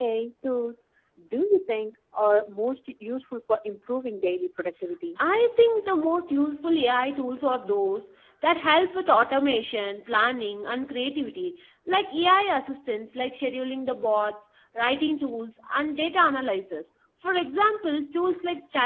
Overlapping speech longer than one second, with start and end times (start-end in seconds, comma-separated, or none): none